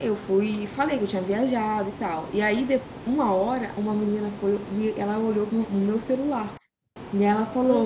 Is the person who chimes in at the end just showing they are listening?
Yes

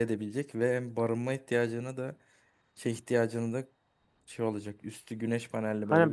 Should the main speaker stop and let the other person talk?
Yes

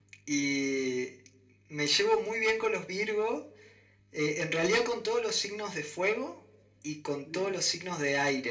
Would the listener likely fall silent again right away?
Yes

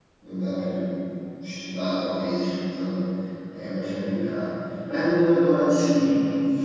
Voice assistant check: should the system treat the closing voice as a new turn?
No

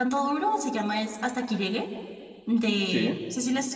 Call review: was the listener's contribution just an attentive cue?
Yes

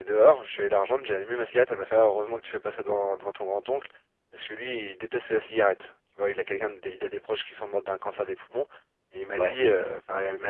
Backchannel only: Yes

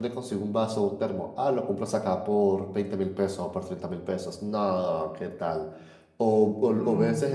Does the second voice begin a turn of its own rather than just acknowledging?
No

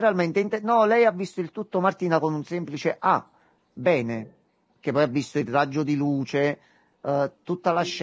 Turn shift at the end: No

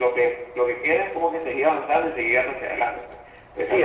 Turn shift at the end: Yes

